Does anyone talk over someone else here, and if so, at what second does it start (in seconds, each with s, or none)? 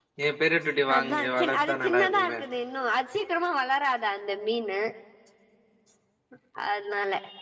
0.9 s